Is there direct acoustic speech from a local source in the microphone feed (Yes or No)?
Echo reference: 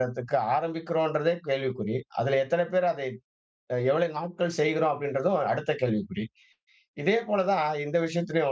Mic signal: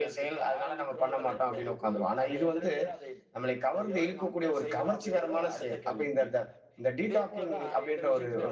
Yes